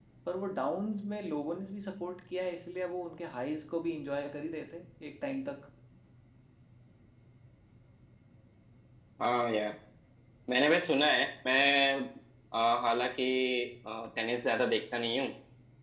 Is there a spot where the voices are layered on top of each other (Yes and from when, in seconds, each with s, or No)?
No